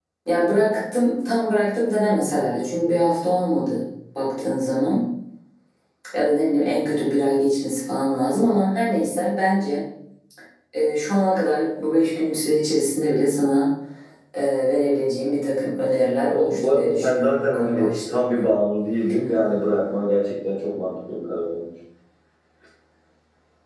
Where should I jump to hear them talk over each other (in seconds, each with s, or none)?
16.3 s